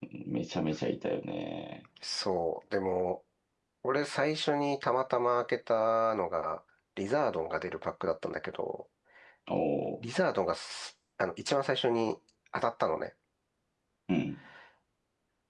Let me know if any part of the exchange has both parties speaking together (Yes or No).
No